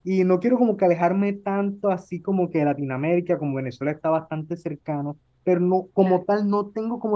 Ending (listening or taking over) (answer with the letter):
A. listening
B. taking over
A